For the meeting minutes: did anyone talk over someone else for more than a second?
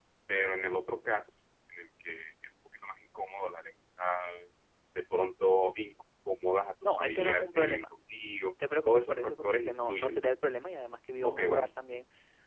Yes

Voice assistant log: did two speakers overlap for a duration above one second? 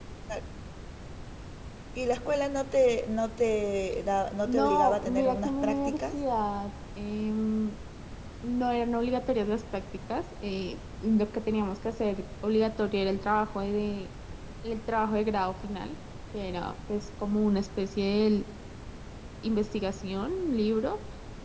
Yes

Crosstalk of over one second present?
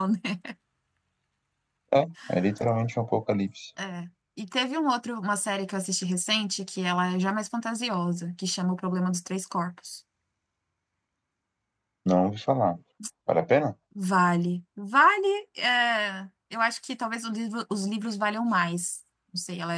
No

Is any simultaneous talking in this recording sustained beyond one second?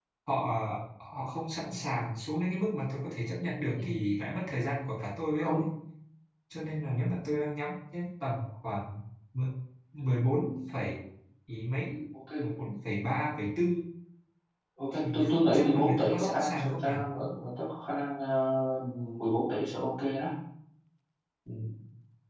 Yes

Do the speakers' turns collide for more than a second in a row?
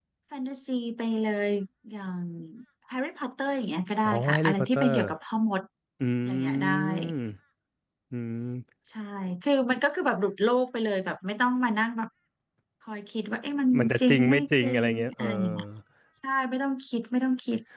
Yes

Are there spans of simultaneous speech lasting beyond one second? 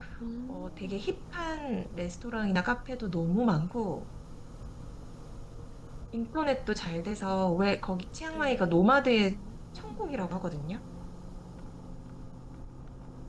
No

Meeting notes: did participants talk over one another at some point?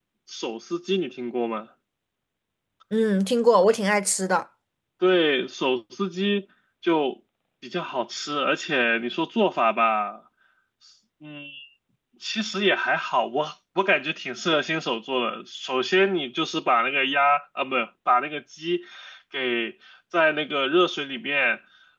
No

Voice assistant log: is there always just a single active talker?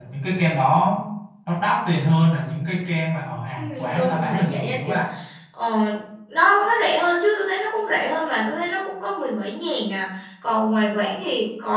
No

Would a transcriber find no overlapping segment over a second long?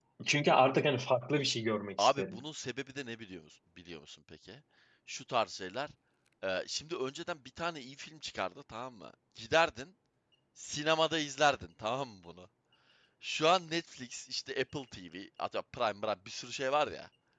Yes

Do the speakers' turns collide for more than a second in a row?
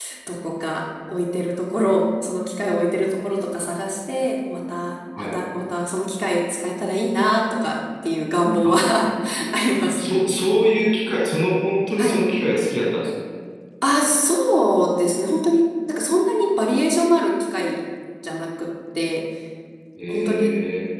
No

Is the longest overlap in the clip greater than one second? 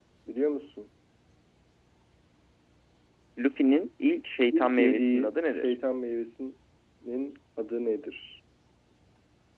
Yes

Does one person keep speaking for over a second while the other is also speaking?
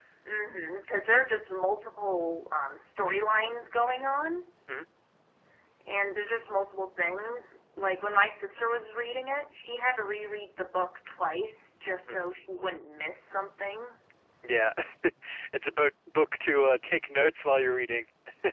No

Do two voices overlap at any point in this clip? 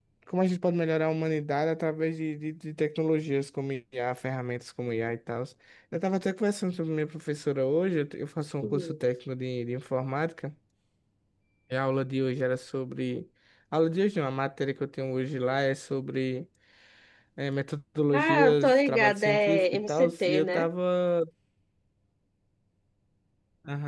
Yes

